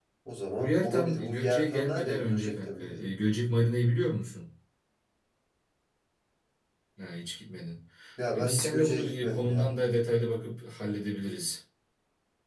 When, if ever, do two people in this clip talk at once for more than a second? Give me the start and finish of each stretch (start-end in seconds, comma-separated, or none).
0.6-3.1, 8.3-9.8